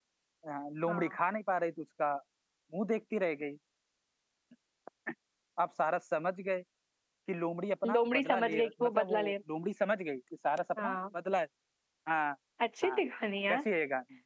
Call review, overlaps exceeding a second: present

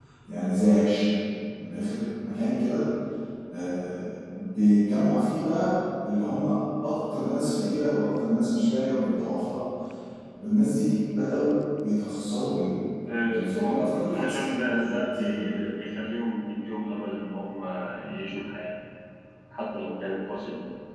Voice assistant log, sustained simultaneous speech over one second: present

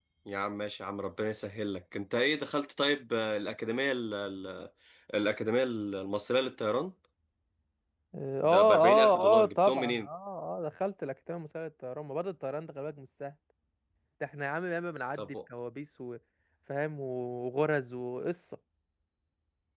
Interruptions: present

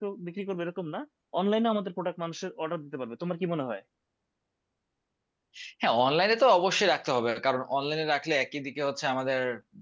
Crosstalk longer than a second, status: none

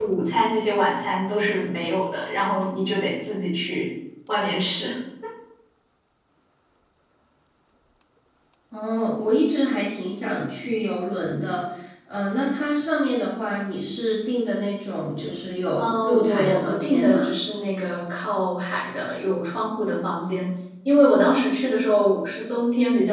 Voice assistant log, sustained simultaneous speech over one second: present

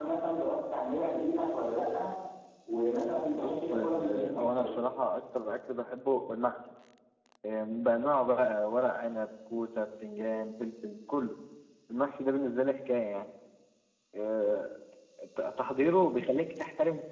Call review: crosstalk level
present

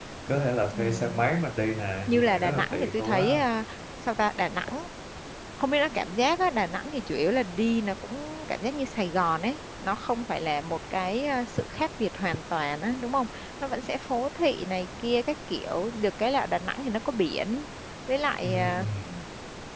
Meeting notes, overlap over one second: present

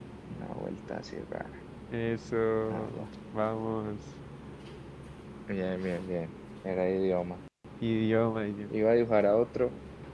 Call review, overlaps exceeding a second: none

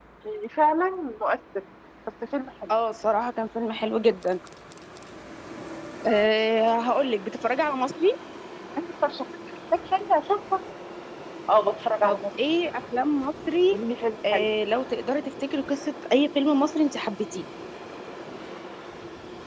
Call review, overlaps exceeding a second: none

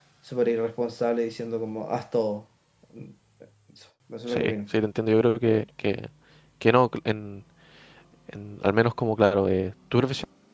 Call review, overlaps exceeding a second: none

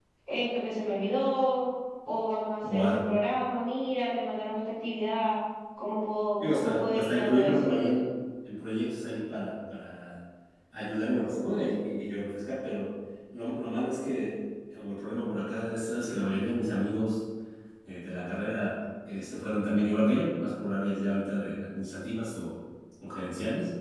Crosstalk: present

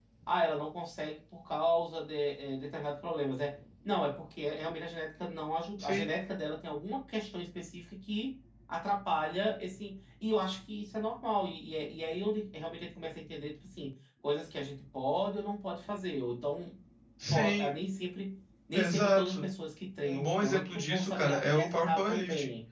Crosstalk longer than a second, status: present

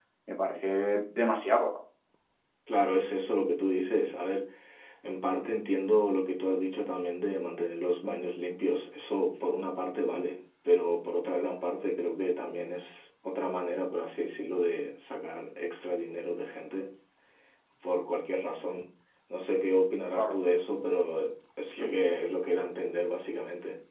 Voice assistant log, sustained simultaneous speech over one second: none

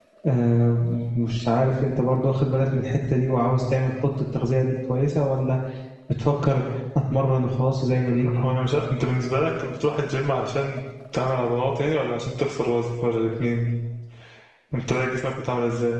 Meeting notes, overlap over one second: none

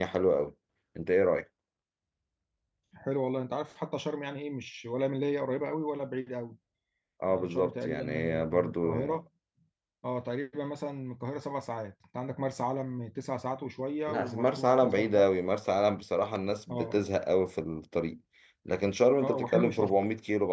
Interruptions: present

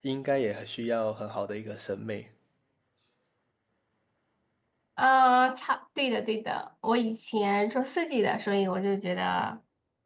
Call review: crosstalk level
none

